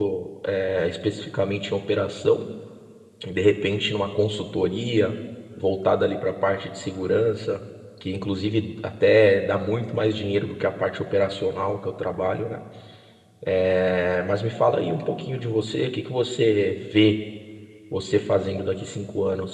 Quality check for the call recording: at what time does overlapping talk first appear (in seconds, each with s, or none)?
none